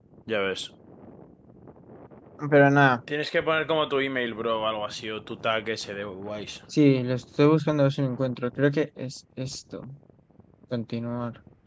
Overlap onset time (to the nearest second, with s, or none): none